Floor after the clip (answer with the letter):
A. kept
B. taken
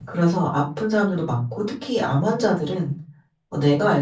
A